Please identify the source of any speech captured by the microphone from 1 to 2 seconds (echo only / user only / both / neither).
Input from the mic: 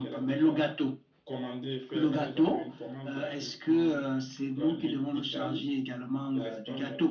echo only